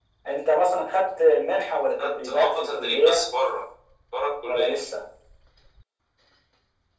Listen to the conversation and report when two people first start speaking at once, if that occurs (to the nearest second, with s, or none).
2 s